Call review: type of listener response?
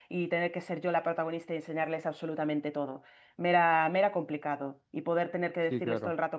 listening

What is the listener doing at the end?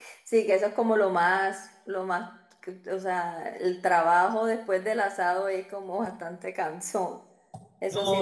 taking over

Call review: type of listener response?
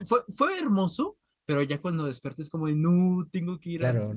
taking over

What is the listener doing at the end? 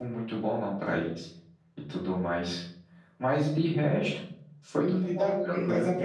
taking over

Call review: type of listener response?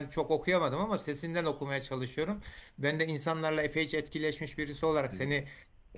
listening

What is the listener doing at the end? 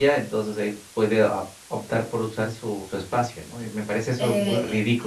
taking over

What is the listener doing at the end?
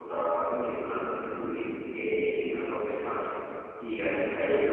listening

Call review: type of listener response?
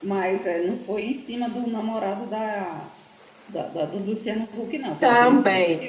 taking over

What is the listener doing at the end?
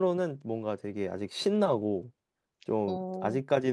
listening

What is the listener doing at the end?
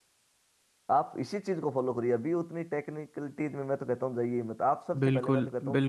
taking over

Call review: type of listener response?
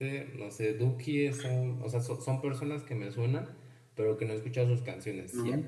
listening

